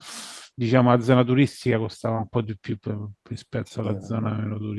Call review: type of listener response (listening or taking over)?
listening